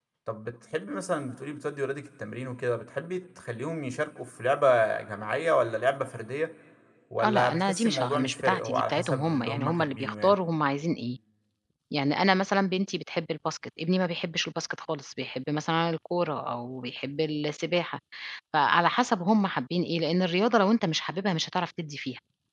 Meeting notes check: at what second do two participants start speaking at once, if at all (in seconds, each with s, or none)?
7.2 s